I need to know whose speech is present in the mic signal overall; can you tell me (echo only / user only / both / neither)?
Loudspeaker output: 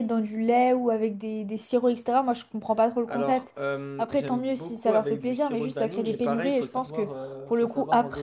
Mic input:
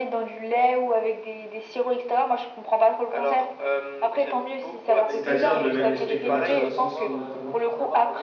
both